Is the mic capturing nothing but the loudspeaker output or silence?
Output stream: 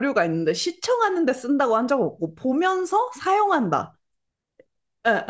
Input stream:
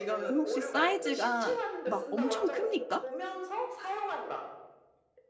No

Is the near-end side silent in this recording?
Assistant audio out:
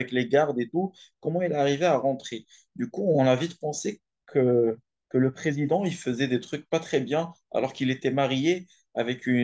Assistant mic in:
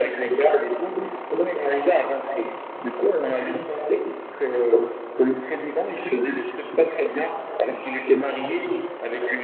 Yes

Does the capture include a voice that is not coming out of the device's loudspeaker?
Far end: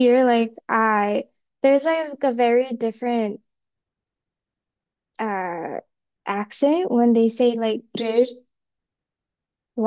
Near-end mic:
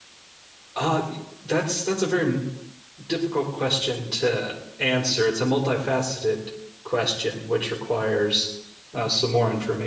Yes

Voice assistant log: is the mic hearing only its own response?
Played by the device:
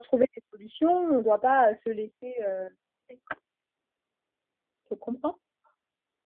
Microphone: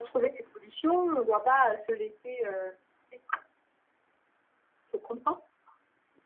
Yes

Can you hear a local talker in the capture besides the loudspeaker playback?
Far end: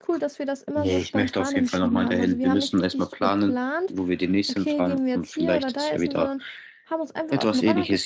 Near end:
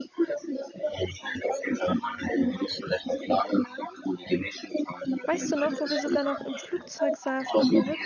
Yes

